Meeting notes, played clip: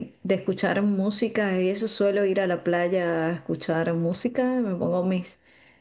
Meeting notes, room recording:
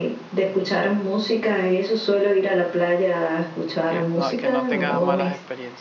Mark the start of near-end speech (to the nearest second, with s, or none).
4 s